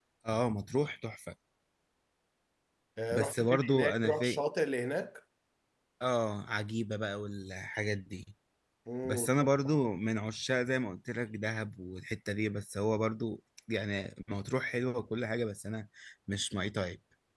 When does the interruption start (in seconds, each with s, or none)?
3.1 s